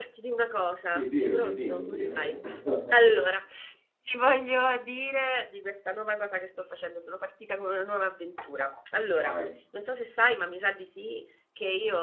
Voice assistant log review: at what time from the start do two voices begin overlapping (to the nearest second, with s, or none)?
1 s